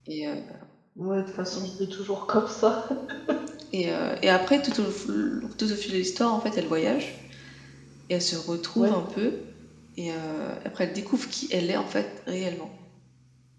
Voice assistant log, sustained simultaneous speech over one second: none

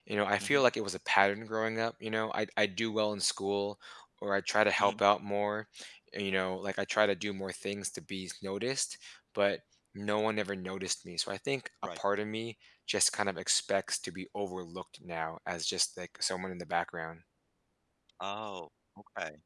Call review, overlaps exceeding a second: none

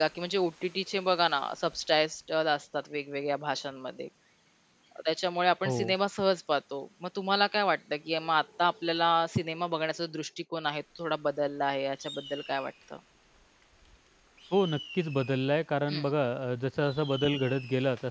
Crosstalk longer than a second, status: none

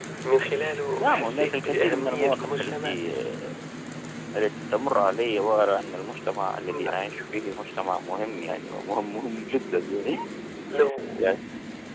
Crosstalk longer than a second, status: present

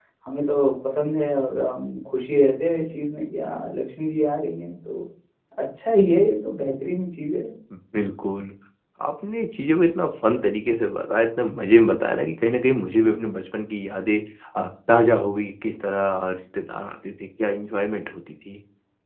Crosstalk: none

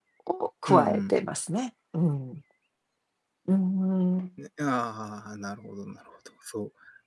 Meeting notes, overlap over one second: none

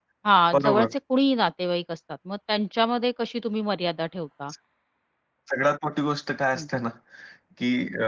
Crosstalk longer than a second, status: none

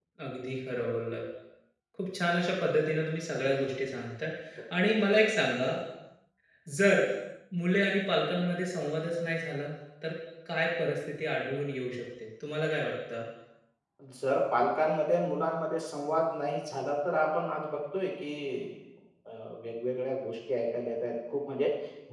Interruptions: none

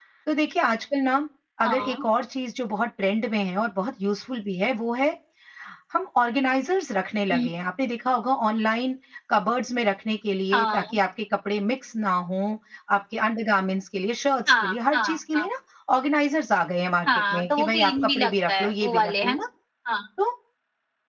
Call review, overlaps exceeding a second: present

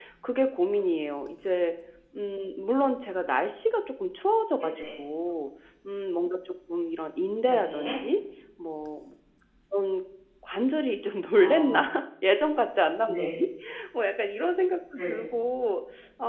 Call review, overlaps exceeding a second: none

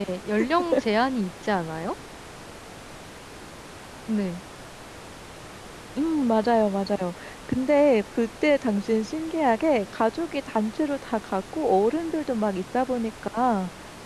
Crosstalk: none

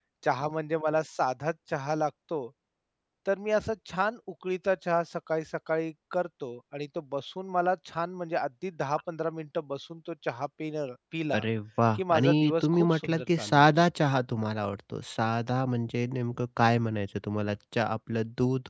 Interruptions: present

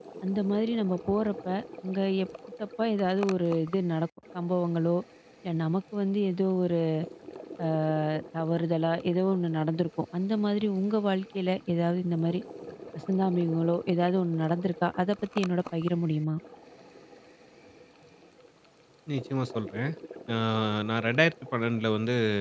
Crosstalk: none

